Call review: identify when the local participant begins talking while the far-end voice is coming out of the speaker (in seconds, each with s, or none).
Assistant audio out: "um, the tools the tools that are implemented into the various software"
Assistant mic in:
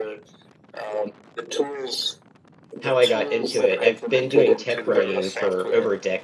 2.8 s